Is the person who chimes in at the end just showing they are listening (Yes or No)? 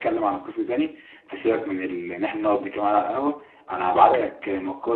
Yes